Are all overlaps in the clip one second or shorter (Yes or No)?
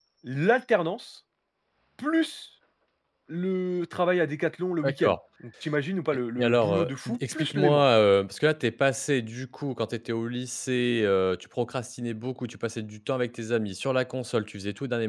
No